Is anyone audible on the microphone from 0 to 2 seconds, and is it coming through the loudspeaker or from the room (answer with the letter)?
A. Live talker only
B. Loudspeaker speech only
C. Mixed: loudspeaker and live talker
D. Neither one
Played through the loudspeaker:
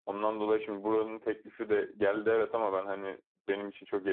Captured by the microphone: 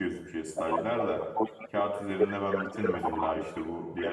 C